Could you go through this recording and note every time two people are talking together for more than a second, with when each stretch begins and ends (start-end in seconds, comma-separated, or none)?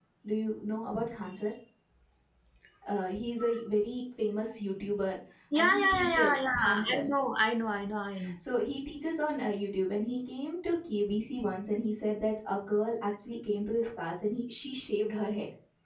5.5-7.0